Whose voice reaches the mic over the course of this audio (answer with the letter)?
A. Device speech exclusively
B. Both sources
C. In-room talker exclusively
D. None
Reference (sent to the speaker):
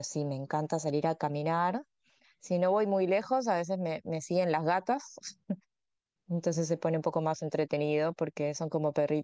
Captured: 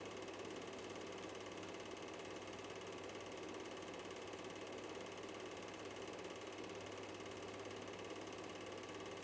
D